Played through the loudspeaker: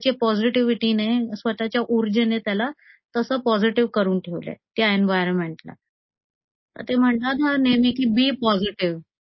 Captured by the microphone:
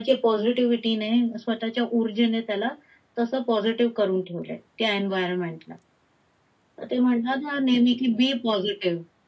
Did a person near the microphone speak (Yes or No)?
No